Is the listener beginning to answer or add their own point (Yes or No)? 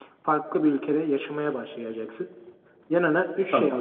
No